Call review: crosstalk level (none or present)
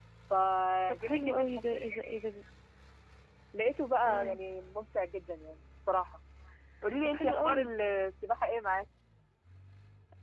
present